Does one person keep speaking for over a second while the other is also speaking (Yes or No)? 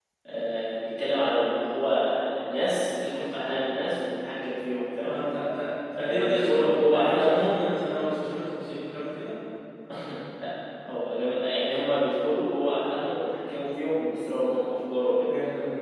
Yes